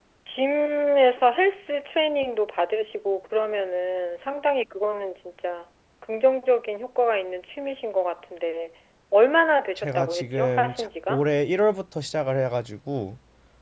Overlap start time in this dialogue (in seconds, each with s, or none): 9.8 s